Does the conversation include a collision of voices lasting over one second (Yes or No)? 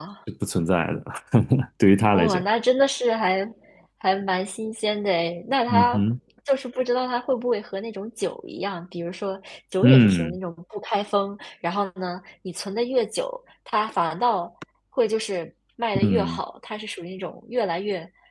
No